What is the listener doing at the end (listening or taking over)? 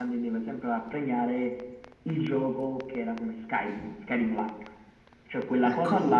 listening